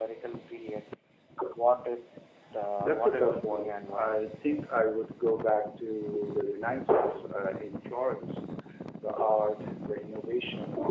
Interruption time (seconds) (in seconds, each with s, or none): 2.8 s